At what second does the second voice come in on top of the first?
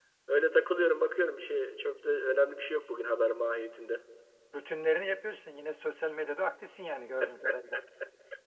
none

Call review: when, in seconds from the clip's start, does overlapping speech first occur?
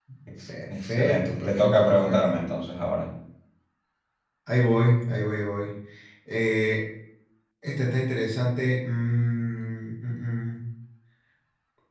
0.7 s

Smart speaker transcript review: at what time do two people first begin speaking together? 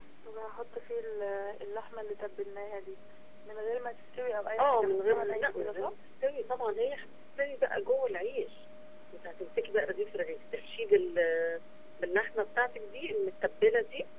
4.6 s

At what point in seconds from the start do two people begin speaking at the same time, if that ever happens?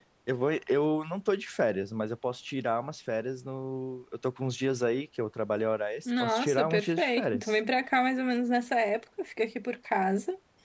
6.1 s

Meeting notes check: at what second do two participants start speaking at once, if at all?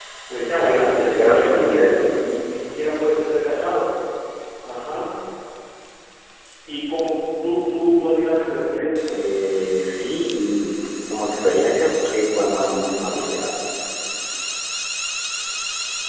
0.6 s

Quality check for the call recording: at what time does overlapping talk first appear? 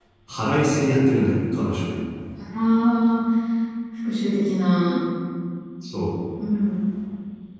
none

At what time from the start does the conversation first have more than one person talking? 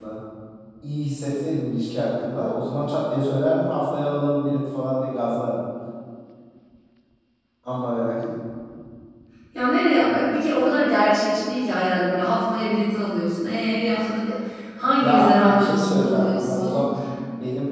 15.0 s

